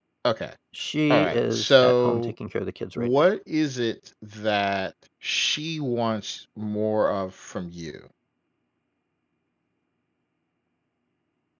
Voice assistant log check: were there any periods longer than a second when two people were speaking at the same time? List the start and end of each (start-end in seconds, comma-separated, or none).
1.1-2.3